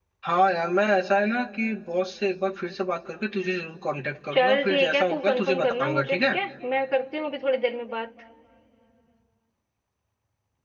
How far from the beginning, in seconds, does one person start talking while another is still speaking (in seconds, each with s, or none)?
4.3 s